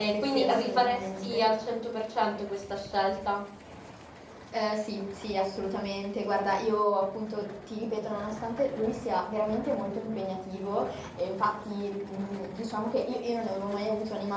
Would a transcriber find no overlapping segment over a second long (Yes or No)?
No